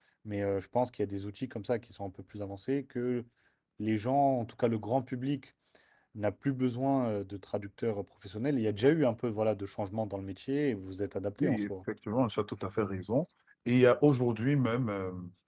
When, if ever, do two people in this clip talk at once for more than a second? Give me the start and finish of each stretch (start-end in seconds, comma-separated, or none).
none